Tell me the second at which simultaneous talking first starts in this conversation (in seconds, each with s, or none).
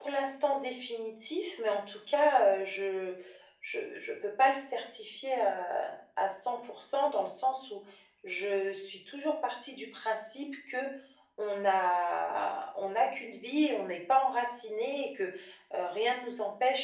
none